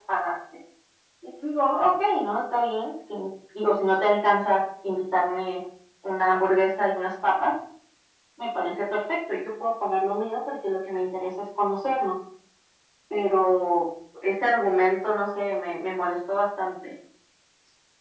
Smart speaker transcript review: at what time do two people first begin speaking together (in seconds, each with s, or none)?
none